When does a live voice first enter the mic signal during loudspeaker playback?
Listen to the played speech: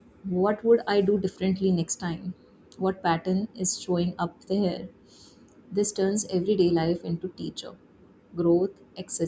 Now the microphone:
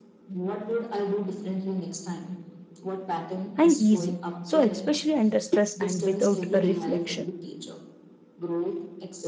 3.5 s

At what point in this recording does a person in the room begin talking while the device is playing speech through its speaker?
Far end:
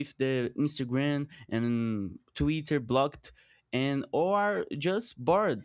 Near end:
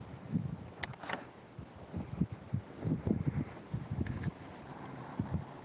none

